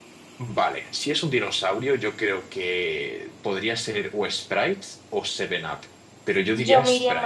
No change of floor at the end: No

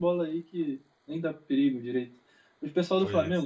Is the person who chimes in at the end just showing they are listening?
Yes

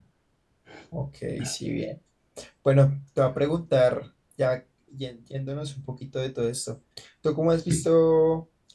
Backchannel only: Yes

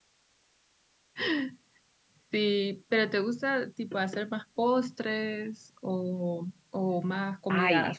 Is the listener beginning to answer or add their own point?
Yes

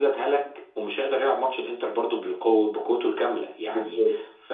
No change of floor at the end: Yes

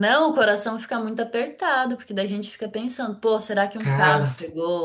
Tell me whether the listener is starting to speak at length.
No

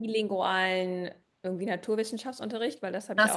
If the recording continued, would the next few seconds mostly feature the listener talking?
Yes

